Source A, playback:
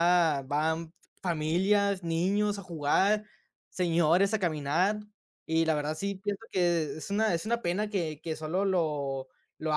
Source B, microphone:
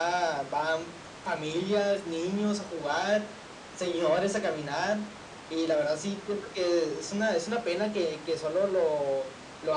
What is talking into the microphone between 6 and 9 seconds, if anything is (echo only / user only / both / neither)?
echo only